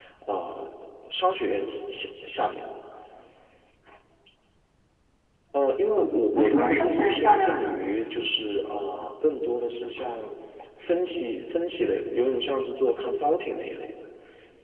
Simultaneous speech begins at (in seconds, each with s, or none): 6.0 s